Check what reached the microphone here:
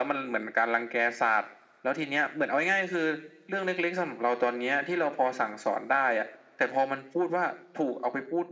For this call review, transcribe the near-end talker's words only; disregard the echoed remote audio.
none

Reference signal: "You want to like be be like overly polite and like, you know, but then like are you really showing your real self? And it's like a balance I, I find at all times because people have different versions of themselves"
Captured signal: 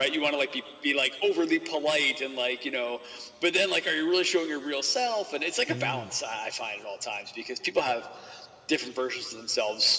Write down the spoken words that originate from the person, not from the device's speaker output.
Mm.

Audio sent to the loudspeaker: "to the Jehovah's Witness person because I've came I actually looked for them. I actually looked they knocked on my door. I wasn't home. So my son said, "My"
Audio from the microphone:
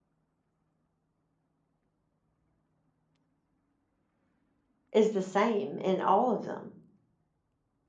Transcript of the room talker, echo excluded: is the same in all of them.

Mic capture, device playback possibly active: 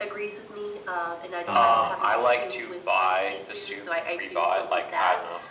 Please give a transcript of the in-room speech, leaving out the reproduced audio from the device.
Um

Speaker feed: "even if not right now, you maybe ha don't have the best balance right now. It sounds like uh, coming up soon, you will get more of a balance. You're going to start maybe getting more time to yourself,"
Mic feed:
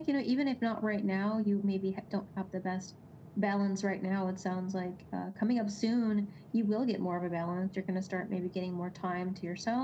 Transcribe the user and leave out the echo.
none

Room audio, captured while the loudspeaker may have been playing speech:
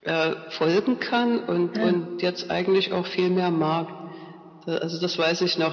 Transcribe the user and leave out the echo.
ja.

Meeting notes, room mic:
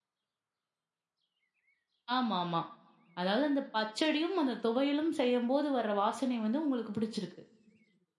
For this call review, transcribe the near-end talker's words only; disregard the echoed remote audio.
ஆமாமா. அதாவது அந்த பச்சடியும் அந்த துவையலும் செய்யும்போது வர வாசனை வந்து உங்களுக்கு பிடிச்சிருக்கு.

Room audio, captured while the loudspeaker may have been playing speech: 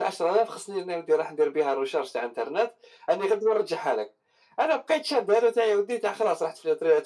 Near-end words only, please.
none

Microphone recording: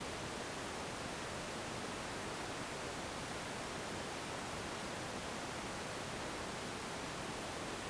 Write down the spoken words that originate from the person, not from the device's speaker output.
none

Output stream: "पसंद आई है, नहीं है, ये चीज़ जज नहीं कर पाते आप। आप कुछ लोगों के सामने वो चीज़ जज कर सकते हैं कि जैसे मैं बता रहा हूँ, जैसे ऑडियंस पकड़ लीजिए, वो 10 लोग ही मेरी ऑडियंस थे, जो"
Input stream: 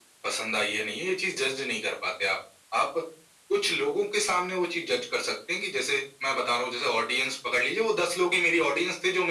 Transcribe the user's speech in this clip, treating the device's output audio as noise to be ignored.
none

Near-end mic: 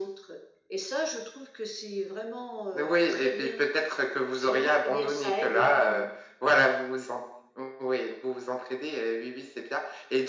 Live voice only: none

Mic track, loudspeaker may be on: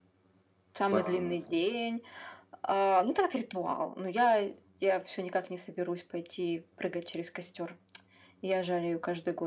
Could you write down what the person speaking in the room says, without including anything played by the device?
Масленица.

